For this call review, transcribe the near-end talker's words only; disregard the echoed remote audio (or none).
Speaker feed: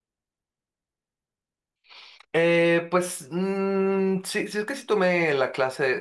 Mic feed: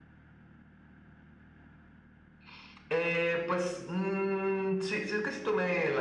none